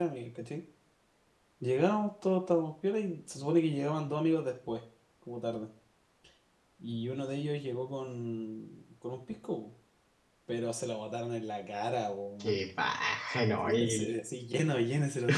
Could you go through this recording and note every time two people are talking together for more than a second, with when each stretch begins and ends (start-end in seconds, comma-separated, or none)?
none